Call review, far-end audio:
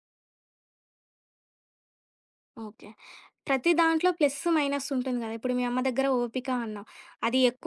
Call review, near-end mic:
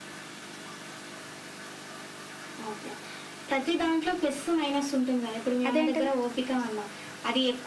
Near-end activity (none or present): present